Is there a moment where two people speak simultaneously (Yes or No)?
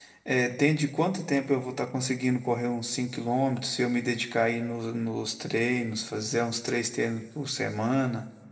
No